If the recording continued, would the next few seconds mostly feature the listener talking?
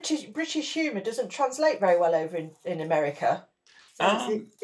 No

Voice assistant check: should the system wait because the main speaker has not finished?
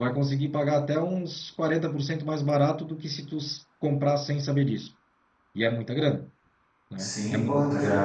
No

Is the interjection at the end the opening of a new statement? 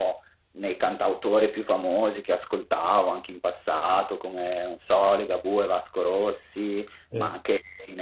No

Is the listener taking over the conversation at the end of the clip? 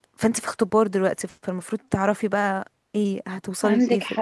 Yes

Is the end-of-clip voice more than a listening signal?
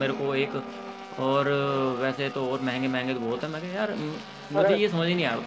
No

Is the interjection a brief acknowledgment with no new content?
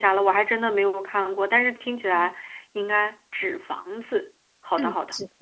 No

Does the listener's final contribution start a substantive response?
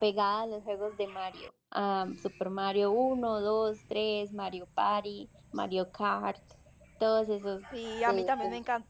Yes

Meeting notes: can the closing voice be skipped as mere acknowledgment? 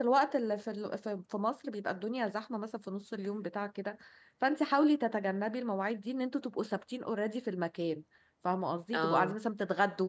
Yes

